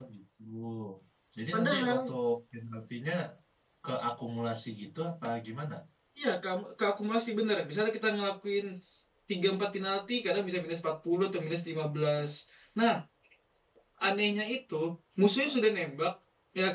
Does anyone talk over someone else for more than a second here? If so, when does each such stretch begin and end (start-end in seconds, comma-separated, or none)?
none